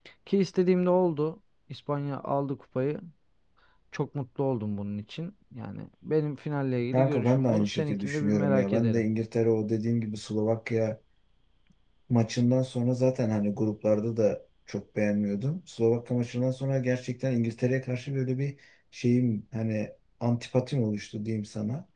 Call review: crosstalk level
present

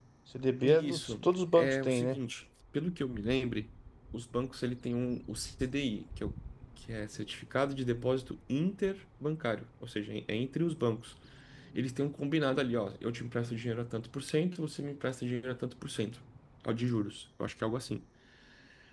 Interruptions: present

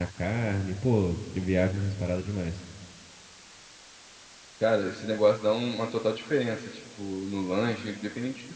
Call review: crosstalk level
none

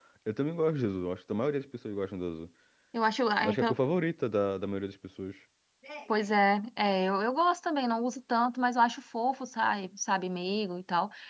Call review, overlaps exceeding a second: none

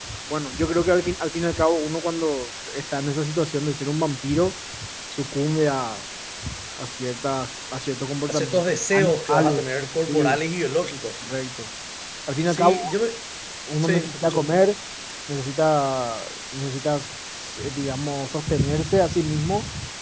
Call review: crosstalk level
present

